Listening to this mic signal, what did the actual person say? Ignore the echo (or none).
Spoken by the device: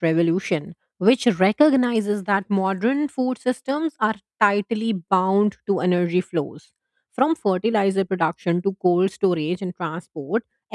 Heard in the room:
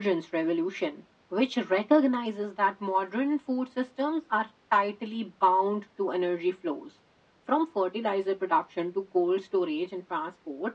none